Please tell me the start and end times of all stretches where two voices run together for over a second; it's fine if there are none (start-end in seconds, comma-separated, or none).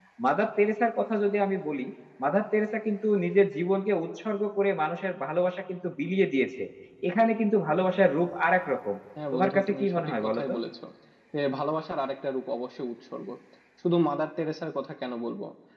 9.3-10.5